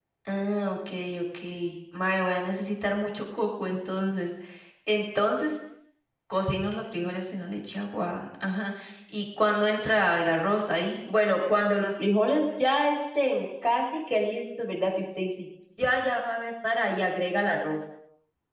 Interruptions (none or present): none